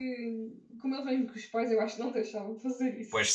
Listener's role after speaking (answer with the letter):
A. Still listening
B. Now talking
B